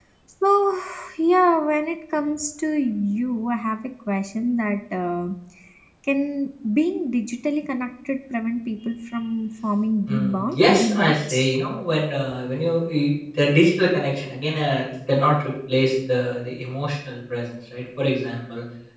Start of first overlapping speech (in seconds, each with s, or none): 10.1 s